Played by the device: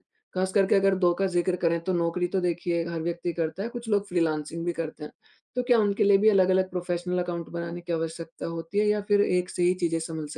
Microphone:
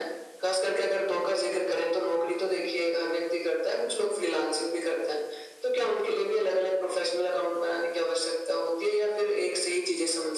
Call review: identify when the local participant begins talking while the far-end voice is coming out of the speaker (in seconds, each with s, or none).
none